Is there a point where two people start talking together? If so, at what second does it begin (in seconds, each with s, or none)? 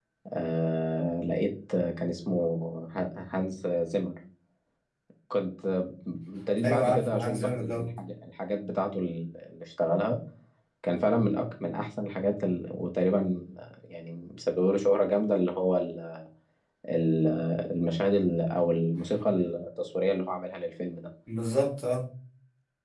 6.6 s